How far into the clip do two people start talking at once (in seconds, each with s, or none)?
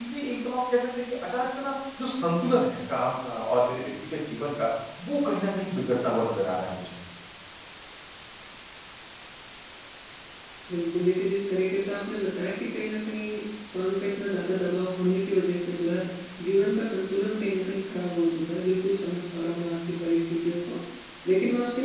none